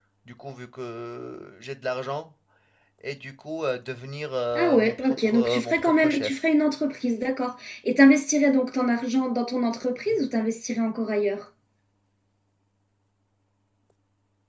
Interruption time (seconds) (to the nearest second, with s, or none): 5 s